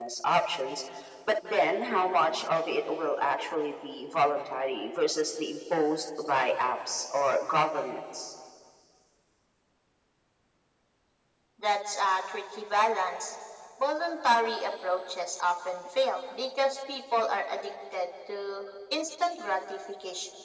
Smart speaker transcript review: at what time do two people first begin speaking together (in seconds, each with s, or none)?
none